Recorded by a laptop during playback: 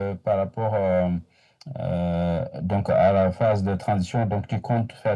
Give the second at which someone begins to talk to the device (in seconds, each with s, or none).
none